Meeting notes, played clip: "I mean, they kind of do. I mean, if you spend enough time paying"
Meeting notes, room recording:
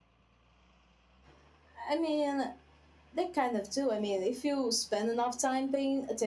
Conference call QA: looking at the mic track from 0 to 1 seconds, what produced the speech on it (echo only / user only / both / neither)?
neither